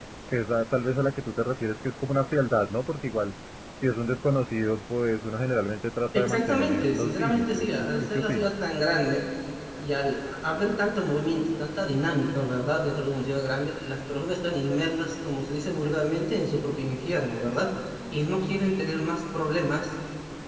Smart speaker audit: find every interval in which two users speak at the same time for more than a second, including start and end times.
6.2-8.5

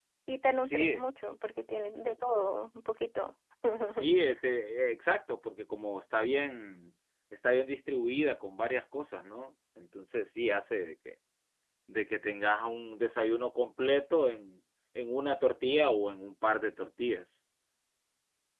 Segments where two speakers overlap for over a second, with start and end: none

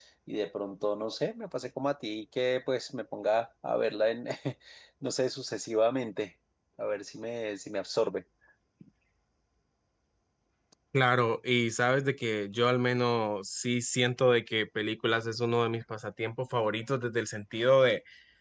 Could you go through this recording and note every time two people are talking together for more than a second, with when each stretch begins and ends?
none

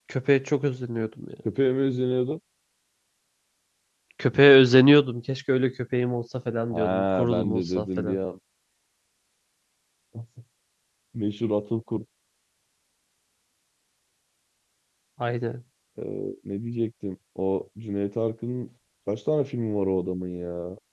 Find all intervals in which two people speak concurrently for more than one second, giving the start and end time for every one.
6.7-8.2

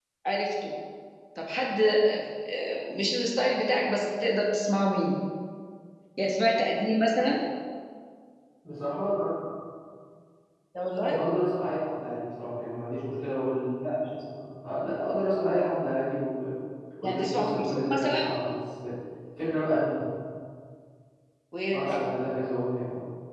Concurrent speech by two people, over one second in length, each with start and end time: 17.0-18.3

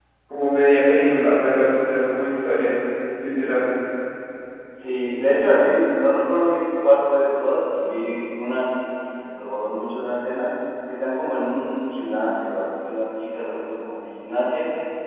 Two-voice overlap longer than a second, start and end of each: none

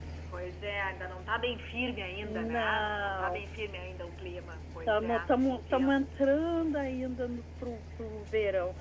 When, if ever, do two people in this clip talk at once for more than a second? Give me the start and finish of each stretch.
2.2-3.4, 4.9-6.1

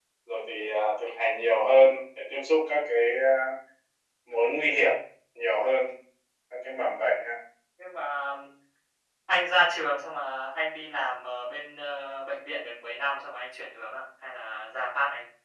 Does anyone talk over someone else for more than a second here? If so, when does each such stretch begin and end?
none

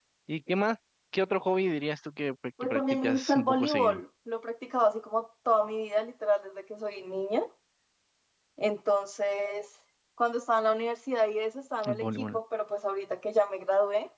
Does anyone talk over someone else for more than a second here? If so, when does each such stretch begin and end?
2.6-4.0

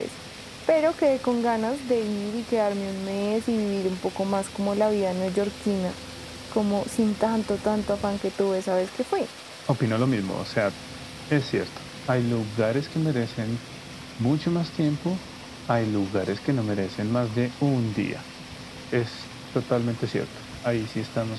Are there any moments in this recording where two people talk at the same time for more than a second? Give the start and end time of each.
none

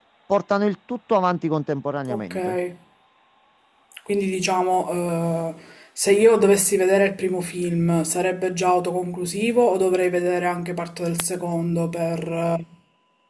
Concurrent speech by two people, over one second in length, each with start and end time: none

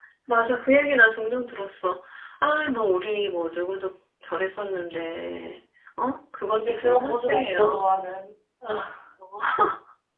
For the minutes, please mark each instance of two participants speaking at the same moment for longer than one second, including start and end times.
6.5-7.8

